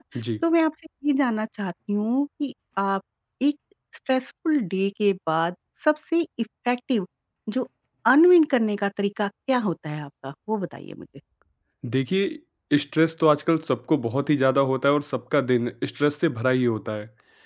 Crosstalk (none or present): none